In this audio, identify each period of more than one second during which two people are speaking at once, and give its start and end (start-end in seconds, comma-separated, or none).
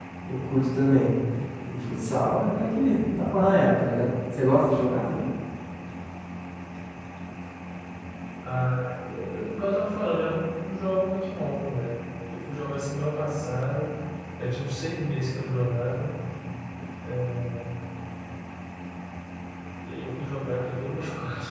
none